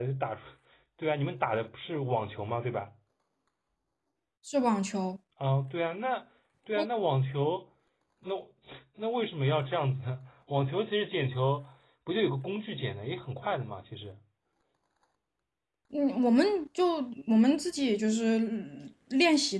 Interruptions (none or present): none